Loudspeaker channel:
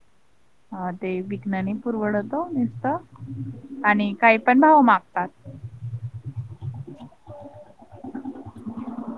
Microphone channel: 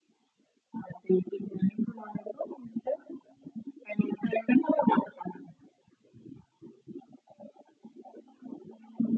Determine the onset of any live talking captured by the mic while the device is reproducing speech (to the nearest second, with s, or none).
none